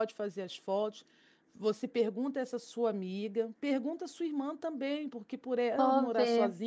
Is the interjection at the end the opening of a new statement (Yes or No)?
No